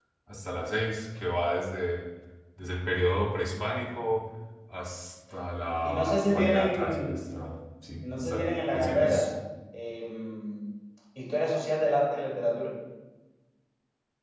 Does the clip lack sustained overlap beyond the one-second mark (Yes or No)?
No